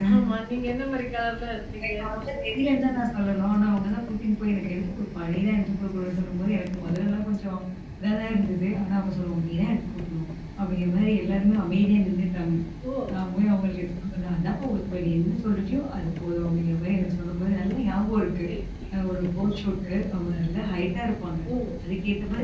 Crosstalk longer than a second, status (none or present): none